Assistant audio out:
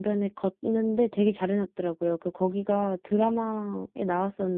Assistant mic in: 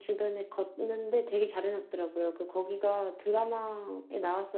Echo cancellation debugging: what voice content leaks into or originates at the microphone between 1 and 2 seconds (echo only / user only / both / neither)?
echo only